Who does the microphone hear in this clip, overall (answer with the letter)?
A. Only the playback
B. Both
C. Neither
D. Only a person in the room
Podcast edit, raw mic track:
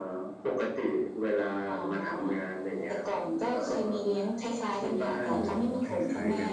B